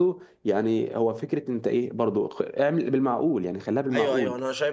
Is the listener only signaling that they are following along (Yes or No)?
No